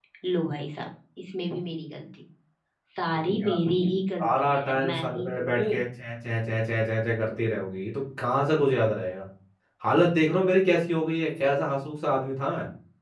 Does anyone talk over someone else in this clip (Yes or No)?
Yes